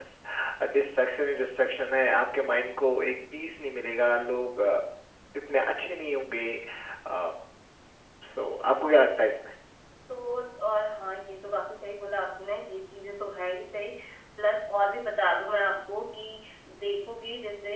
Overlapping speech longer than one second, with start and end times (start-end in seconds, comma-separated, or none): none